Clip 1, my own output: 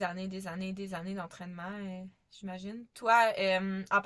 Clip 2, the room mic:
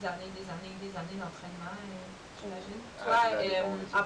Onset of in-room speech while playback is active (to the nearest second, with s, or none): 2 s